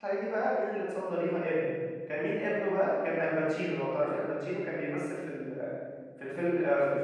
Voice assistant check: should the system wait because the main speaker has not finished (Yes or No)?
Yes